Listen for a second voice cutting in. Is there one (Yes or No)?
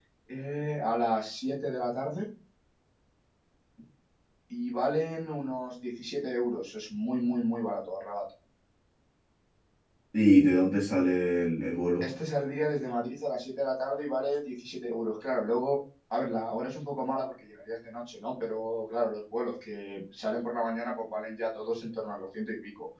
No